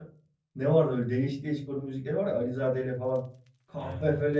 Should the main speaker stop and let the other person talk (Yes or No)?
No